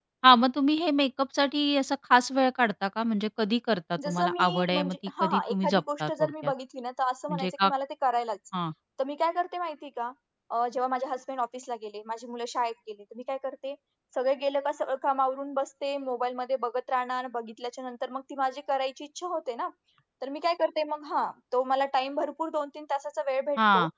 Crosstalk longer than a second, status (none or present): present